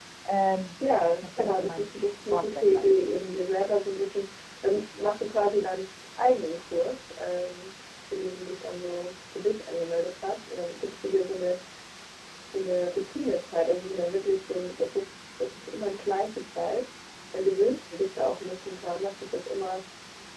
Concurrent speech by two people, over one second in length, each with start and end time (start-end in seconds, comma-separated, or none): 1.0-3.0